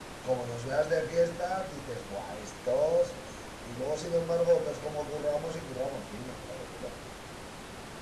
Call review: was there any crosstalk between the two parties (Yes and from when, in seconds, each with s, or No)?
No